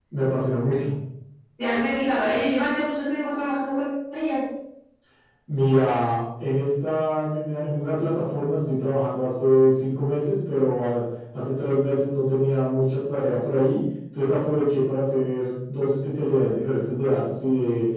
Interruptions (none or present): none